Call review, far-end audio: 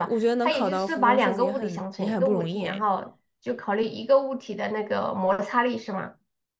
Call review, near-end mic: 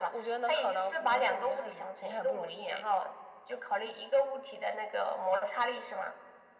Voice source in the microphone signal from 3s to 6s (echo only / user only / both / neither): echo only